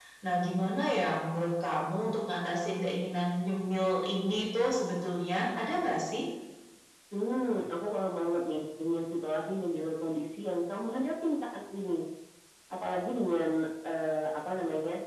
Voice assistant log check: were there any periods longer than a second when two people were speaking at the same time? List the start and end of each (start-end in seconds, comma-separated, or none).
none